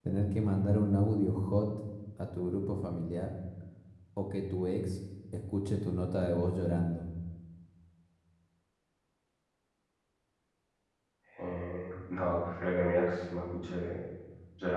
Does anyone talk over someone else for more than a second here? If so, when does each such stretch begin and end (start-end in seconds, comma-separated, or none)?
none